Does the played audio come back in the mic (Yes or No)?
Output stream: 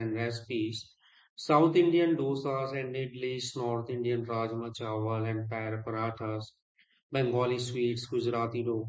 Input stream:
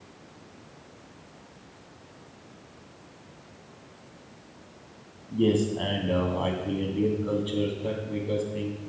No